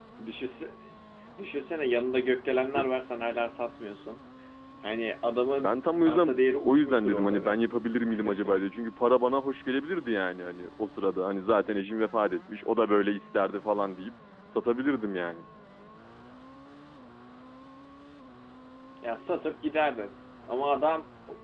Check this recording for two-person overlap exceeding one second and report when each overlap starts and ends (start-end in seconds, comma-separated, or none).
5.6-7.6